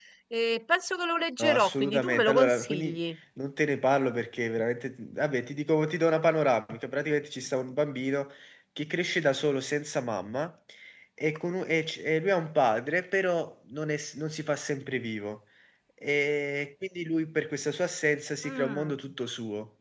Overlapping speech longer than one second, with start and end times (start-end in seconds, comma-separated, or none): 1.4-3.0